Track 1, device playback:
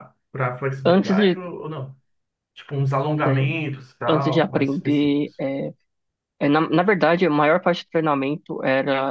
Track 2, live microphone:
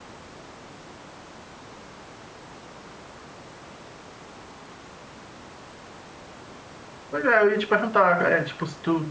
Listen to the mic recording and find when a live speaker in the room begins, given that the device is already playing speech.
7.1 s

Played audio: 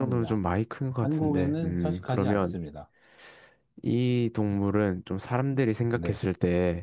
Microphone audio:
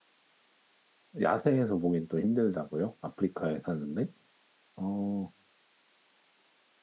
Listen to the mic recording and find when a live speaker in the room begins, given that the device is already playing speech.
1.2 s

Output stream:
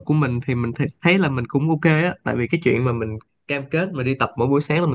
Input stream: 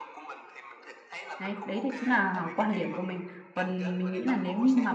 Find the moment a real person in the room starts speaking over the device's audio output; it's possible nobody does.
1.4 s

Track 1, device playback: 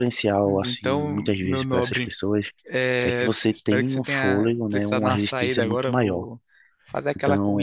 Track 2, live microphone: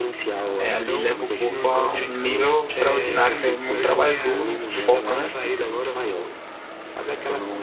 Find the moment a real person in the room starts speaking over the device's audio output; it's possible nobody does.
0.6 s

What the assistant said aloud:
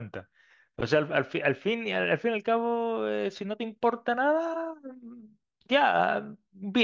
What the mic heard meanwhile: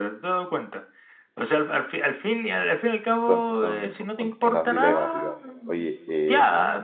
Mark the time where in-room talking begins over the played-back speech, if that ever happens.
2.8 s

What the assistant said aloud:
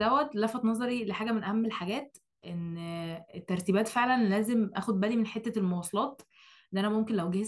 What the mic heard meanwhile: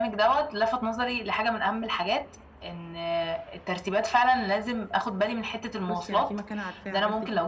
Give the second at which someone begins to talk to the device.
5.8 s

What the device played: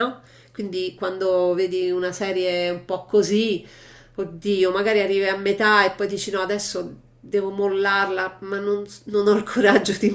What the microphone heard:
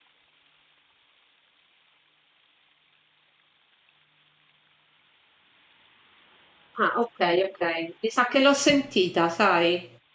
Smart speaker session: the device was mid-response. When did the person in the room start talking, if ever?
6.8 s

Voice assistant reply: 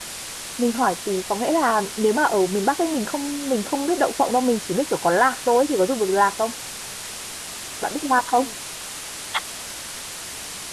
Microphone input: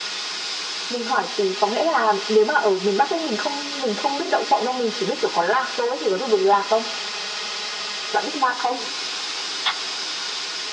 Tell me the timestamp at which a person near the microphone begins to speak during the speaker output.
none

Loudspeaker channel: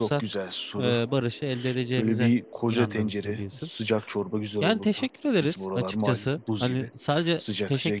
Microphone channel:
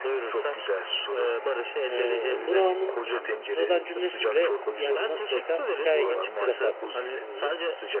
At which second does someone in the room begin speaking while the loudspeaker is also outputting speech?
1.9 s

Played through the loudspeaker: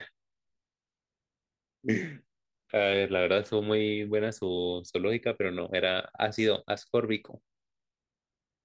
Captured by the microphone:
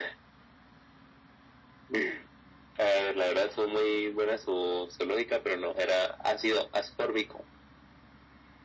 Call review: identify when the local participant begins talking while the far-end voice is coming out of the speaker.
none

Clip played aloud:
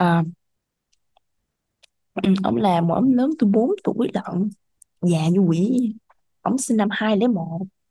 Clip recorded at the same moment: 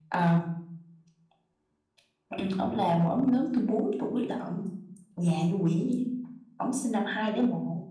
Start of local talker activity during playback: none

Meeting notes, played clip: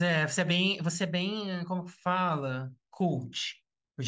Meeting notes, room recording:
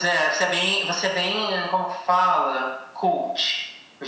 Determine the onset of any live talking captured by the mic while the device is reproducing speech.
none

